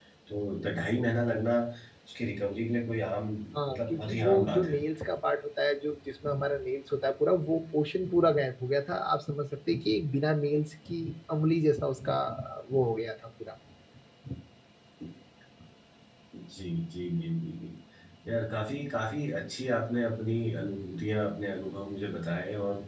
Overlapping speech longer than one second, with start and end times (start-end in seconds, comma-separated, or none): 3.5-4.8